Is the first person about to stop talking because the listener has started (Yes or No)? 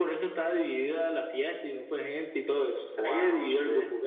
Yes